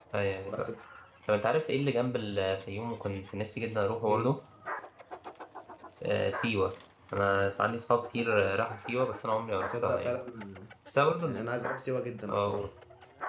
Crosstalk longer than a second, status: none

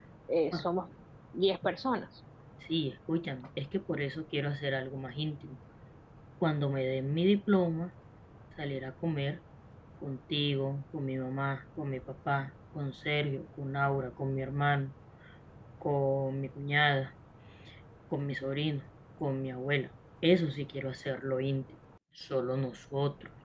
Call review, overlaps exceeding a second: none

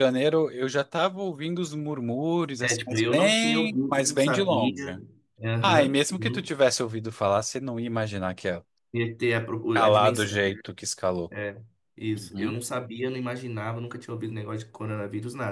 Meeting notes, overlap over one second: present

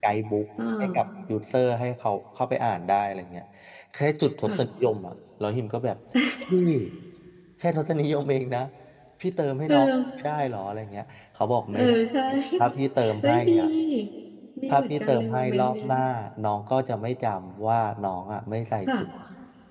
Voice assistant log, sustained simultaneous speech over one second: present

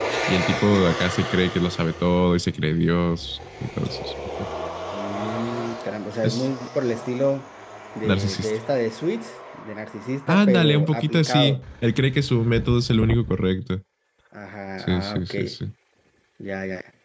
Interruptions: present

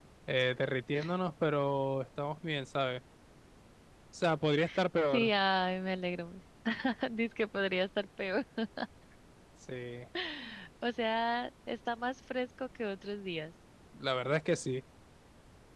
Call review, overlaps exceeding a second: none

